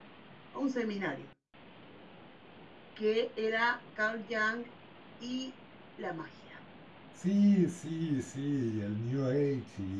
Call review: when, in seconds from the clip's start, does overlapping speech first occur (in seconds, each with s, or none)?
none